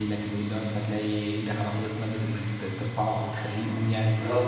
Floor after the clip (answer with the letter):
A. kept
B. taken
B